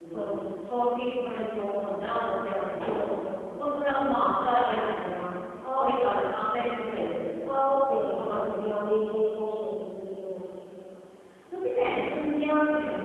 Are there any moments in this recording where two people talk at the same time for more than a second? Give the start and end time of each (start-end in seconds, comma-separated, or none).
none